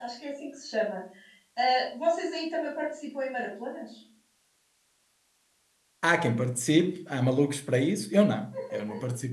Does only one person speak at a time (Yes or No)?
Yes